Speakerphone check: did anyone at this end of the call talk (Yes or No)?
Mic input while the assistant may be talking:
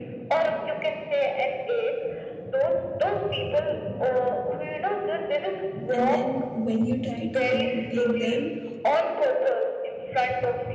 Yes